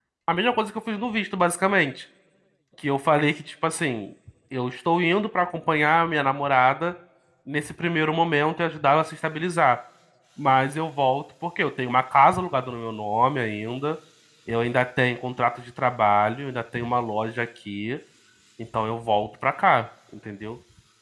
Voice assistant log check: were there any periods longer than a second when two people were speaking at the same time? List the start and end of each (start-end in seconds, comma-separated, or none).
none